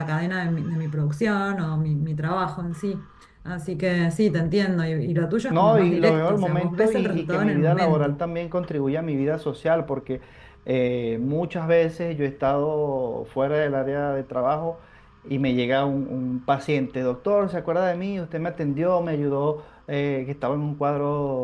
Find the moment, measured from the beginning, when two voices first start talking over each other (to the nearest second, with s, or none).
6 s